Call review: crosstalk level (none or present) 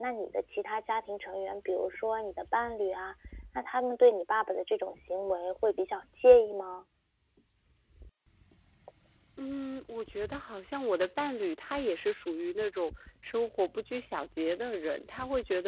none